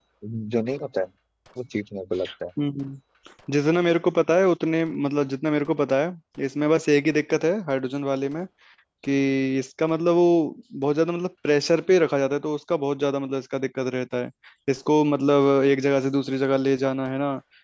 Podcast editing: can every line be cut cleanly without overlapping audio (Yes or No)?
Yes